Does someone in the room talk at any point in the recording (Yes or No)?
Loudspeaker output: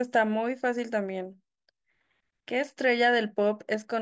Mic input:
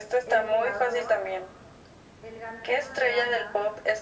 Yes